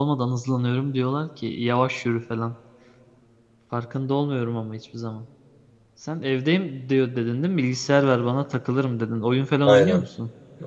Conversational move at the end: taking over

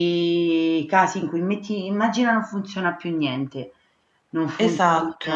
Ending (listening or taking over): listening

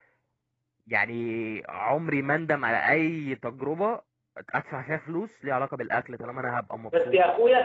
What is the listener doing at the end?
taking over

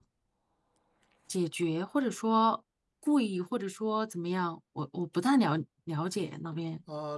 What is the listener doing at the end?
taking over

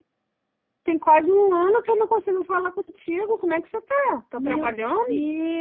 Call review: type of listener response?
taking over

